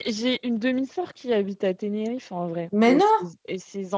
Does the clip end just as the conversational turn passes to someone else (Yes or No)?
No